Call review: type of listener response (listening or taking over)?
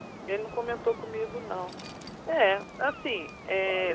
taking over